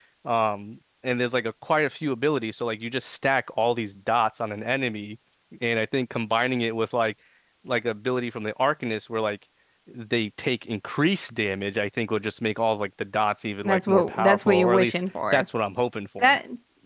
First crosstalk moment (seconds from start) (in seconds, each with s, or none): 13.6 s